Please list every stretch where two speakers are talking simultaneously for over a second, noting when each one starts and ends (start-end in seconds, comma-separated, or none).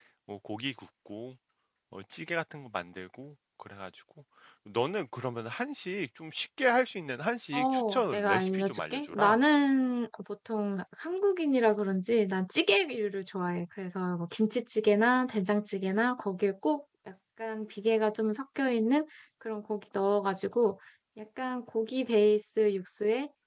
7.5-9.4